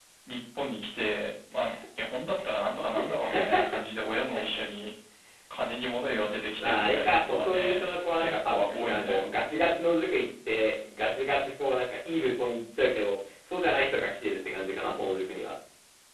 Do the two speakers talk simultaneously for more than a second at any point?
Yes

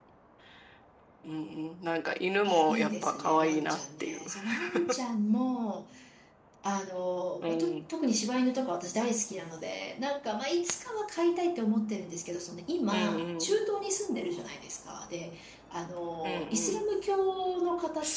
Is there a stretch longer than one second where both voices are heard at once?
Yes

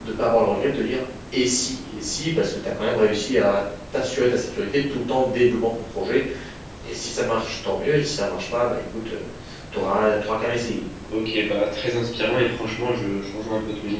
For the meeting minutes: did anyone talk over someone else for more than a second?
No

